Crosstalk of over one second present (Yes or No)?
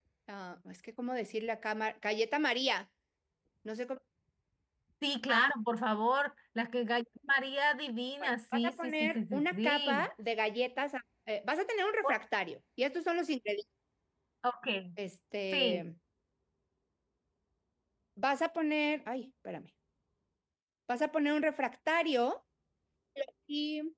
Yes